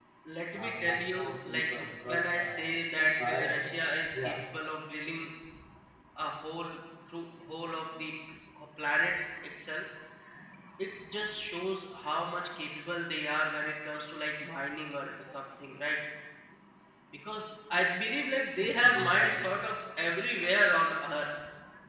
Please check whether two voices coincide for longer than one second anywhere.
Yes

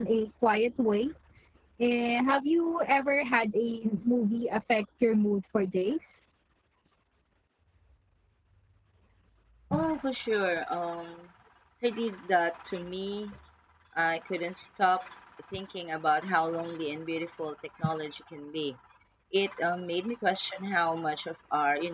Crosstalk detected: No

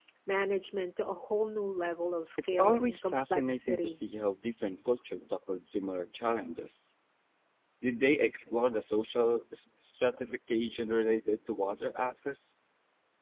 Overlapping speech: Yes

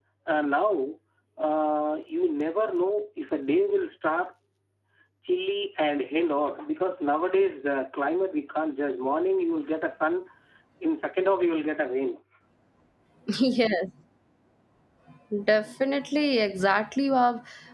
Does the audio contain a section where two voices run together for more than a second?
No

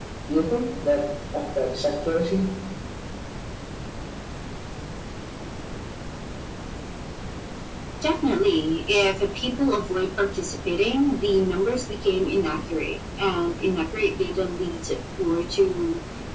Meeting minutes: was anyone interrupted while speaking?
No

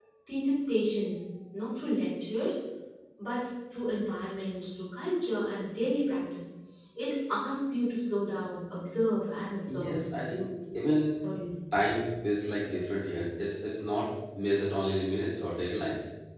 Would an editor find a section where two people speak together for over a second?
No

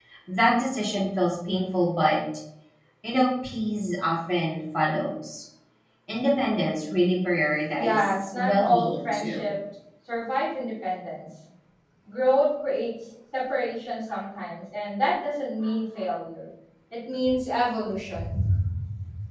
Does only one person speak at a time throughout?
No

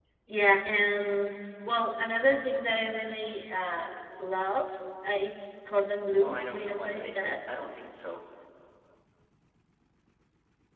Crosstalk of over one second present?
Yes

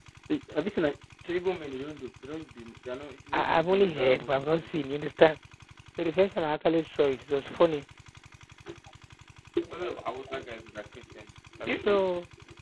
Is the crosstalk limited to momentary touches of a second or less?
No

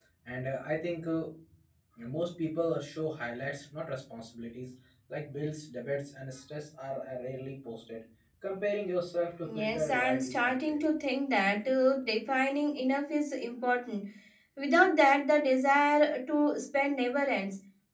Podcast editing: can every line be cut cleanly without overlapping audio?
No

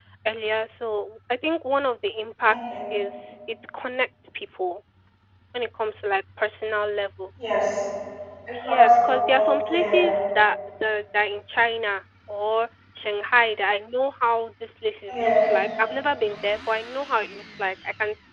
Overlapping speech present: Yes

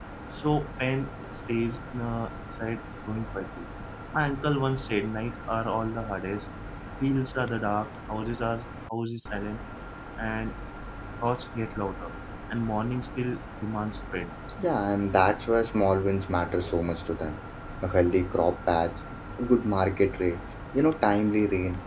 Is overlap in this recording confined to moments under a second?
Yes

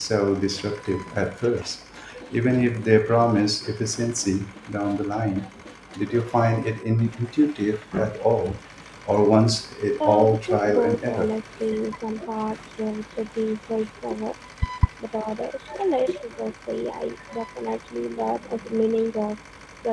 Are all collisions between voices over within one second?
No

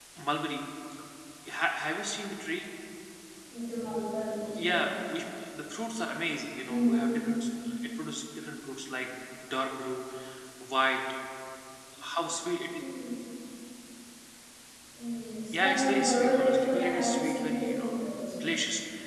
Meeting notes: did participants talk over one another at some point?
Yes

